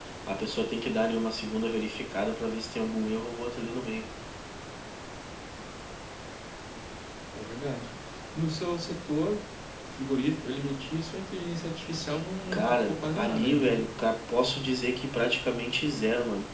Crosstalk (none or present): present